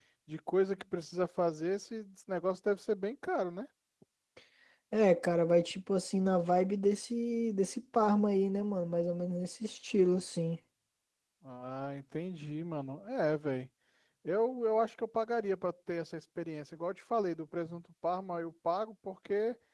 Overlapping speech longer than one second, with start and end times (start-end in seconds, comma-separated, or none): none